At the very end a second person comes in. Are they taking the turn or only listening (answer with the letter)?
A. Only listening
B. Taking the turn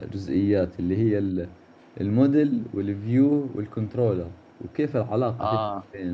A